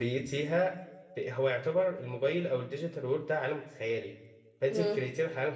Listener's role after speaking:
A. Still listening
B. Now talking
A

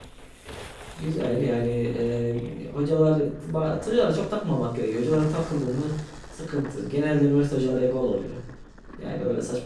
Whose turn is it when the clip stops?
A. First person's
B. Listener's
A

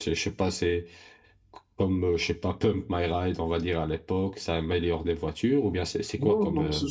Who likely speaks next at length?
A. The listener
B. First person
A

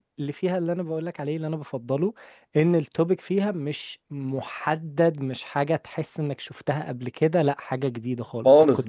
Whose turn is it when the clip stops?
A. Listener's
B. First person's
A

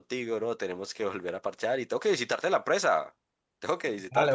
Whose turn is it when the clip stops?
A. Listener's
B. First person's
A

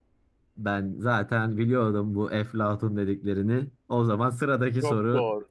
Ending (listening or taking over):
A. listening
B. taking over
B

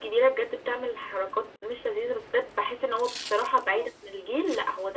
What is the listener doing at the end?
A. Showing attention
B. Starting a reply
A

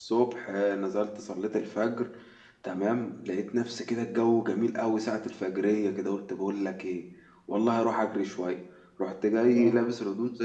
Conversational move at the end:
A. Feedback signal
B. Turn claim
A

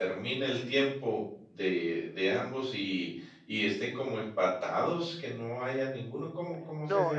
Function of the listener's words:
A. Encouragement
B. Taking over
B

